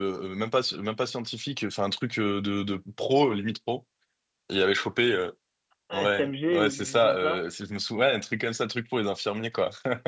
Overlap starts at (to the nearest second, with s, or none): 6 s